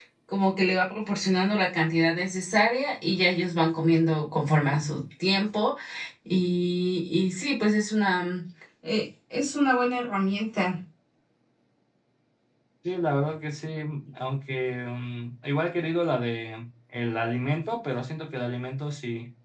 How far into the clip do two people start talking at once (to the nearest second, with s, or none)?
none